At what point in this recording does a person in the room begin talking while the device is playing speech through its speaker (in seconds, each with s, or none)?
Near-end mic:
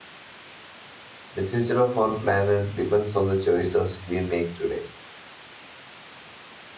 1.3 s